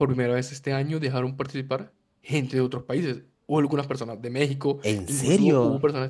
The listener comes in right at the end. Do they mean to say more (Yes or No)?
No